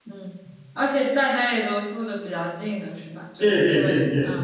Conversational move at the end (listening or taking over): taking over